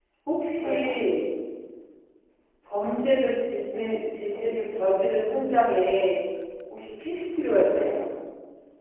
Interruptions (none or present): present